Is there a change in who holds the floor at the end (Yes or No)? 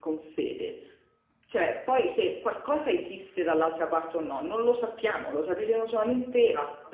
No